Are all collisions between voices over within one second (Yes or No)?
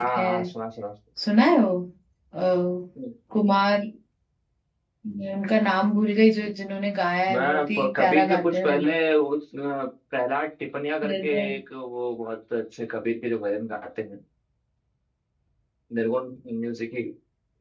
No